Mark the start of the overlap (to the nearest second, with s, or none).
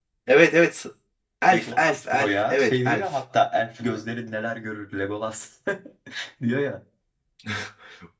1 s